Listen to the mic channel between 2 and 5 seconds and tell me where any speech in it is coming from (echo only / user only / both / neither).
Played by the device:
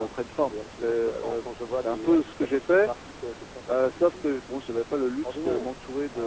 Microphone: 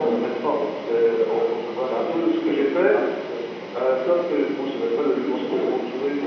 echo only